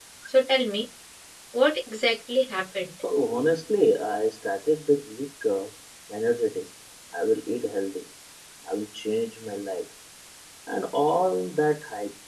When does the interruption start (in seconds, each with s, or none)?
none